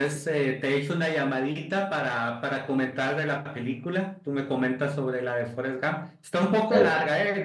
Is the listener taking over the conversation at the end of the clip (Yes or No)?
No